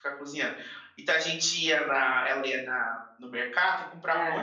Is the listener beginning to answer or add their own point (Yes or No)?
No